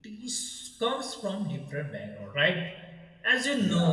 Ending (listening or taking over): listening